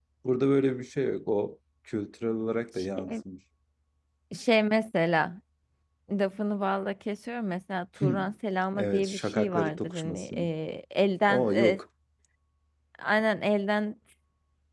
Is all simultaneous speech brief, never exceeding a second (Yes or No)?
No